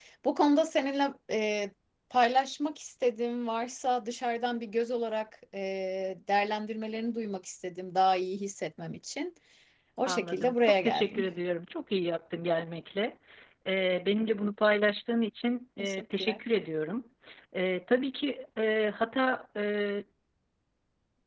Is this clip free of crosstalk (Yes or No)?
No